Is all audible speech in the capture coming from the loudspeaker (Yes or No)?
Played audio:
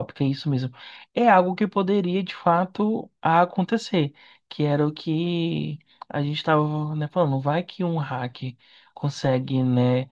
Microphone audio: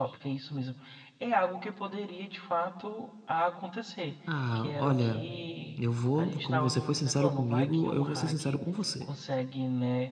No